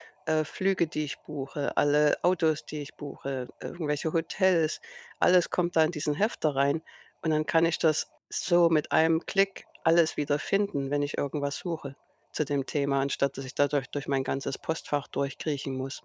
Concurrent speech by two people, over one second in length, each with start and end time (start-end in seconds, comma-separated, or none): none